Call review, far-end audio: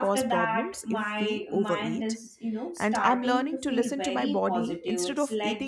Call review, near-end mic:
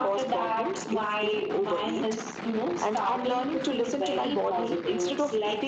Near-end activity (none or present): none